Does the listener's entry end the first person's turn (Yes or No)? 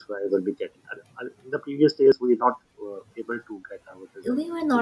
Yes